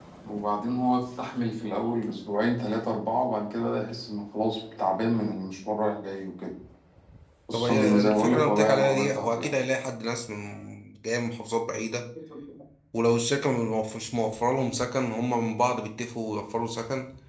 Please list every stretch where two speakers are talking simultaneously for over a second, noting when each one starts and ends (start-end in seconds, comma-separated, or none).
7.5-9.6